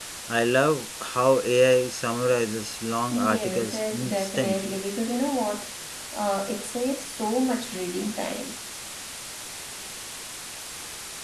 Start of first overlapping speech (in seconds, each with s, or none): 3.1 s